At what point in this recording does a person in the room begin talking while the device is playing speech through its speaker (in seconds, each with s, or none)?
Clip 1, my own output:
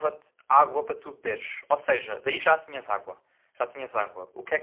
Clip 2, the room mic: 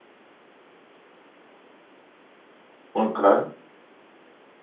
2.9 s